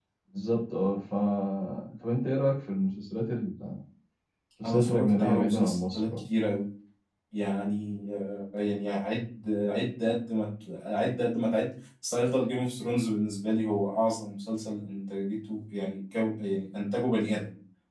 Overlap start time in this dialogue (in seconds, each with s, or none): 4.6 s